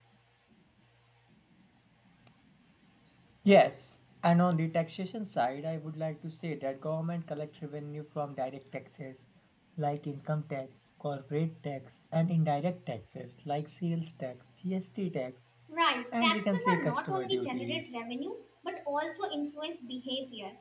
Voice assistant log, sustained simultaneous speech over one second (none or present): present